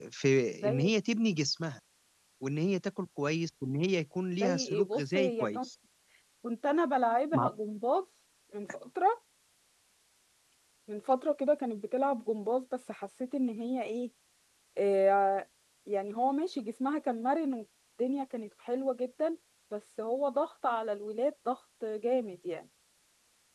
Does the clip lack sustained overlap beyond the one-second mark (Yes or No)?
No